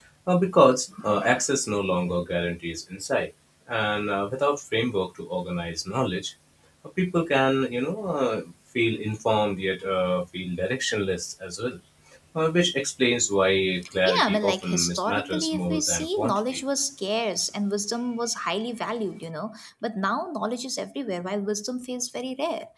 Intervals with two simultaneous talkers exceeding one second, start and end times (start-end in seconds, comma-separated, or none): 14.0-16.6